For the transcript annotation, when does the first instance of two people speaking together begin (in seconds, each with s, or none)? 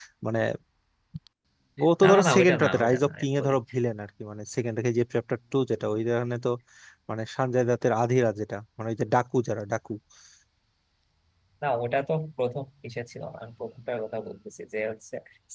2.0 s